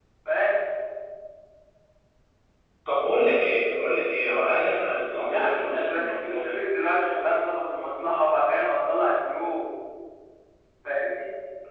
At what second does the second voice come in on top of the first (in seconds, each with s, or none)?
5.3 s